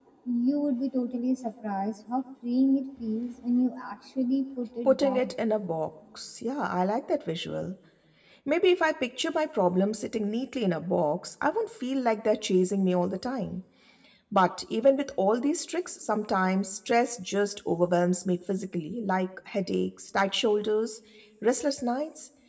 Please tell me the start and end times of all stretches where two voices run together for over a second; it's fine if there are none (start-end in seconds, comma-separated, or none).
none